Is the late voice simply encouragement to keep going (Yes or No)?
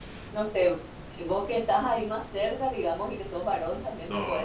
Yes